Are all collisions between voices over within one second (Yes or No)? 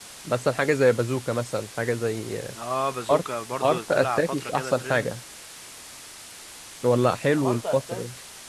No